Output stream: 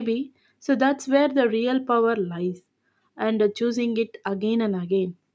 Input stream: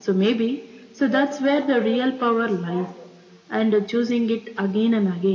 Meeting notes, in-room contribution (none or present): present